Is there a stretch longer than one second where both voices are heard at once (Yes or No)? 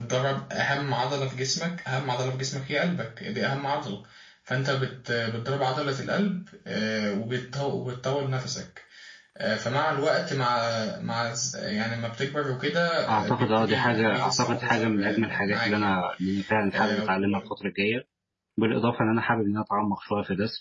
Yes